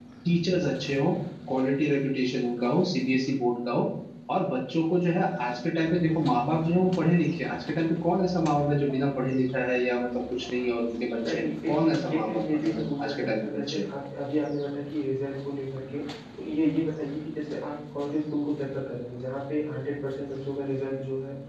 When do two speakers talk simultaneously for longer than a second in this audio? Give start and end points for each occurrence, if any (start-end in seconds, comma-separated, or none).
11.3-13.9